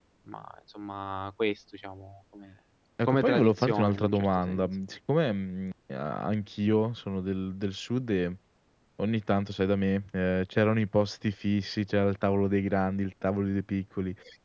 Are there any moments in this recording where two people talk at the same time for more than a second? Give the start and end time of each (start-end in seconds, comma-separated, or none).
3.1-4.8